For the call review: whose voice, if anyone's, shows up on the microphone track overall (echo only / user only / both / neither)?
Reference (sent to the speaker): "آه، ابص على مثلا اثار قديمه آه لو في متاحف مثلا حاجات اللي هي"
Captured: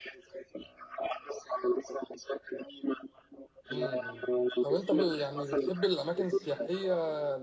both